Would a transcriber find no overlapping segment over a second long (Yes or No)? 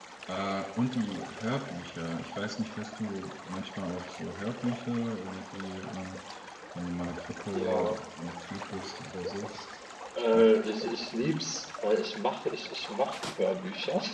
Yes